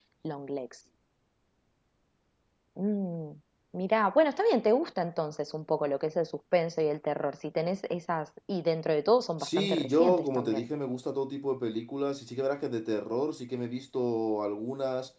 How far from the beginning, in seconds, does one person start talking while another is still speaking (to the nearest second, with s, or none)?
9 s